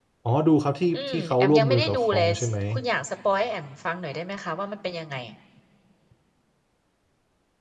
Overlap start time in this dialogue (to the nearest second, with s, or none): 1 s